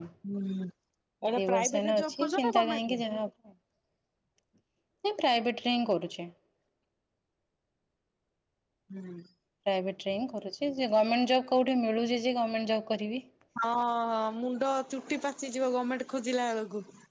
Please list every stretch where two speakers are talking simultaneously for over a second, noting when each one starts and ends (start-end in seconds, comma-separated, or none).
1.4-3.0